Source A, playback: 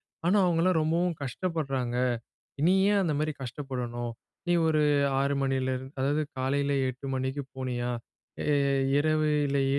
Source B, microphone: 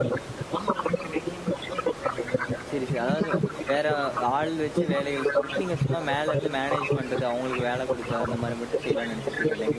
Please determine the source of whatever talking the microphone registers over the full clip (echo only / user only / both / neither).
both